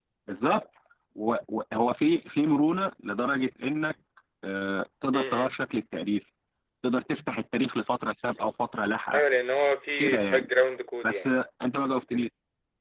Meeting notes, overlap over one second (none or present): none